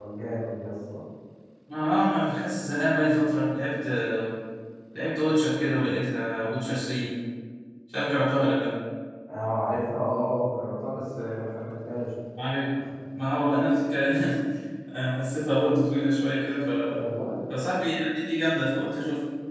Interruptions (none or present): none